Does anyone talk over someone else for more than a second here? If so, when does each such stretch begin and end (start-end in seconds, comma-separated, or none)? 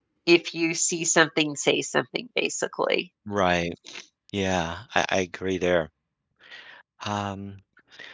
none